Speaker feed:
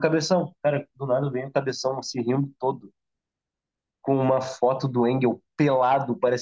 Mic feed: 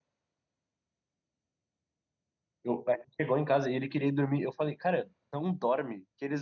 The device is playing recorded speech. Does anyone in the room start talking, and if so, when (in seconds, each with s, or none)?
2.6 s